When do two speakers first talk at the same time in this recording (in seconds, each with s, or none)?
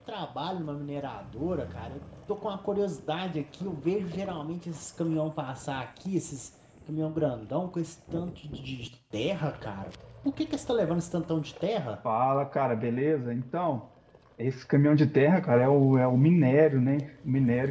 none